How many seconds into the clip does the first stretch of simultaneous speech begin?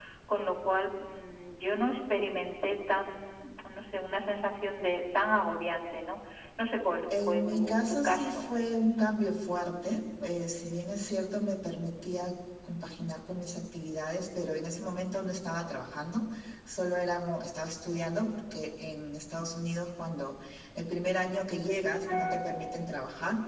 7.1 s

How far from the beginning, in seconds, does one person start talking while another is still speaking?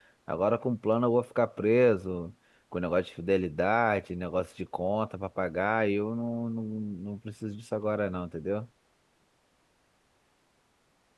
none

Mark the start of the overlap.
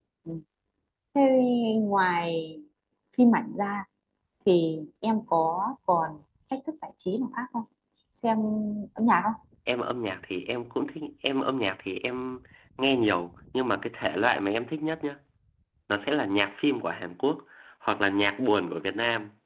none

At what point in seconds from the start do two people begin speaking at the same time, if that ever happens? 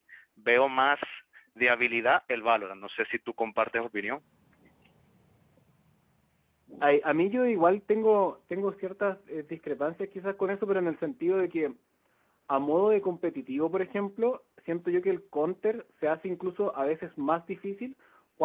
none

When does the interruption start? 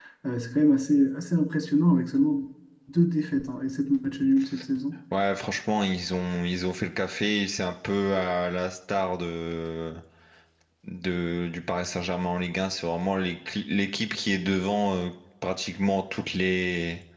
none

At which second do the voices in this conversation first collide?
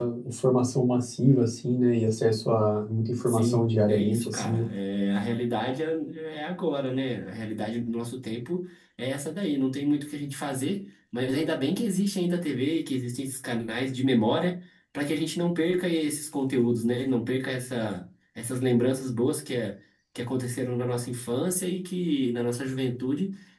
3.3 s

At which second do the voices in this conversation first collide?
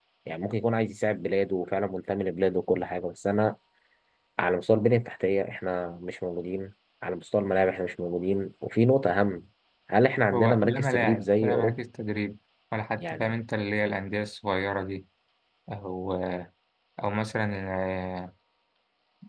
10.3 s

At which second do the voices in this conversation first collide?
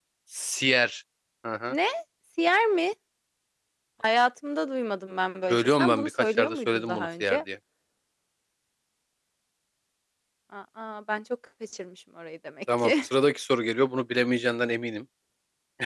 5.5 s

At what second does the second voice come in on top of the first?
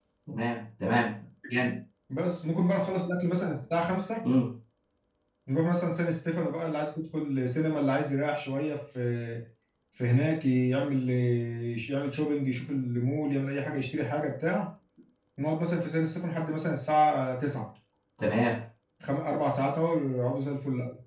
none

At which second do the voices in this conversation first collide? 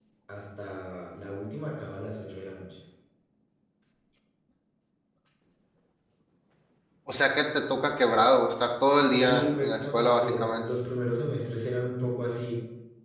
8.9 s

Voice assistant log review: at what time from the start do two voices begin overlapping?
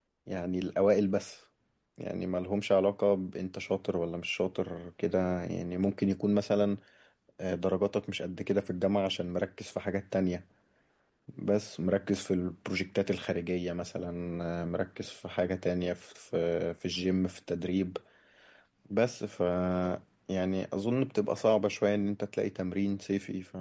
none

